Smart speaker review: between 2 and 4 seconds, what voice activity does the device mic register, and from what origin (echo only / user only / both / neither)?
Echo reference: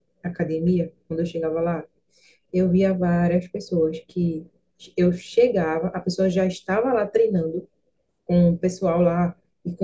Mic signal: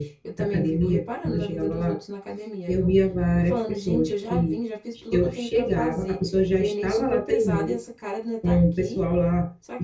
both